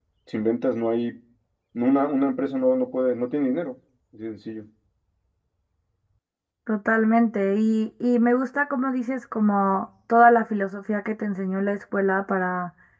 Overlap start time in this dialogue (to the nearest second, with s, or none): none